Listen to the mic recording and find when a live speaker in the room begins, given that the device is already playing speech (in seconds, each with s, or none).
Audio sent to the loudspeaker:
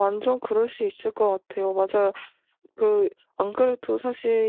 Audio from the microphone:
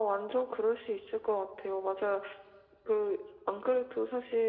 none